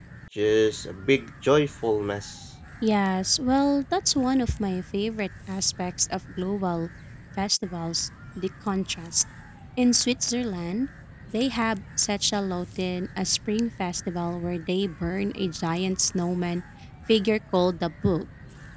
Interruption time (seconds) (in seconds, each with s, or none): none